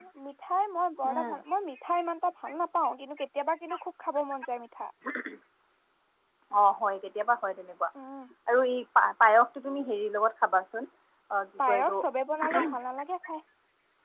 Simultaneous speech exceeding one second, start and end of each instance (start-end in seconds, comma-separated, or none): none